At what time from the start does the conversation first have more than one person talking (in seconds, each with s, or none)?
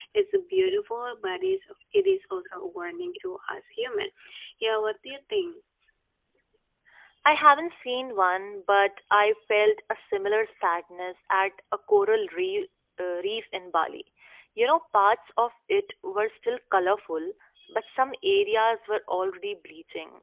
none